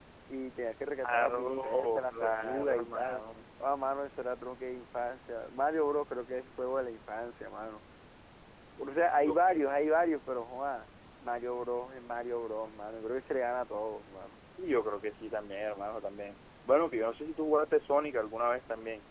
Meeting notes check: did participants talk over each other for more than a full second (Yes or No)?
Yes